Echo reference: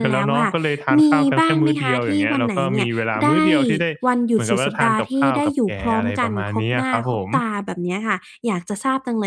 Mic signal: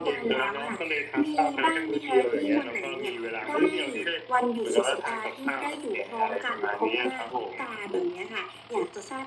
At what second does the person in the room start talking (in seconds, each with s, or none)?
none